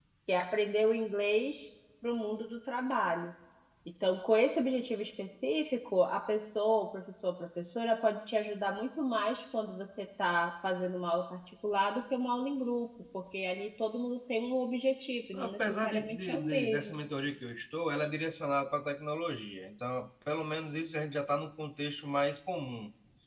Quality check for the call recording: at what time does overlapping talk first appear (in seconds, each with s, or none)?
15.3 s